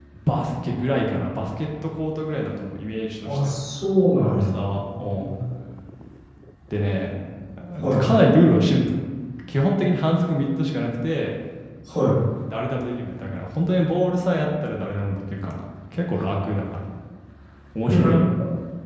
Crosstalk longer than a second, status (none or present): none